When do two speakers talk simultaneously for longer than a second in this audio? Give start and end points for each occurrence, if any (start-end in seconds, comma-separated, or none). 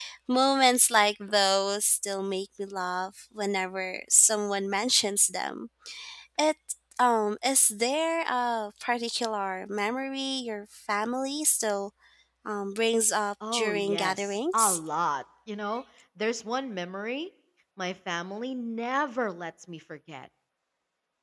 13.5-14.8